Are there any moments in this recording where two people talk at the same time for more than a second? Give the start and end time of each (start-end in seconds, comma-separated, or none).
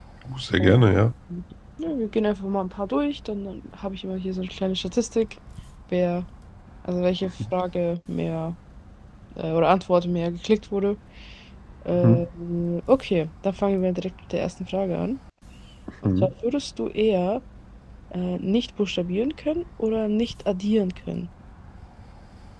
none